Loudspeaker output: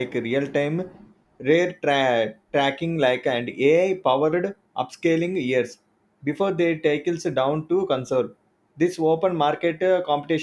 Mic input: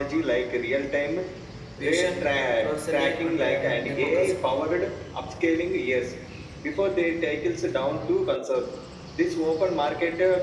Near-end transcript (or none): vision florally and uh, democratically.